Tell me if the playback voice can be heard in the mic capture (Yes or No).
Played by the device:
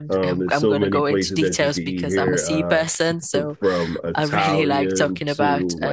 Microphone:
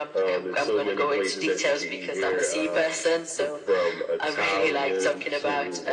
Yes